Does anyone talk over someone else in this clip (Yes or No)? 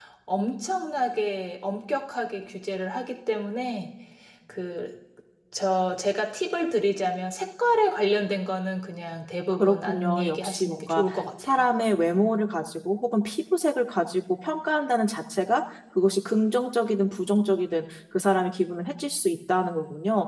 Yes